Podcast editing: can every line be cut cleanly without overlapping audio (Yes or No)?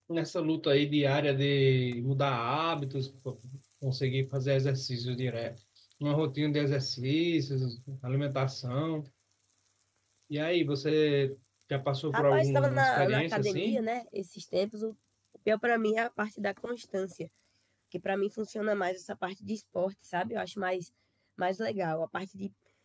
No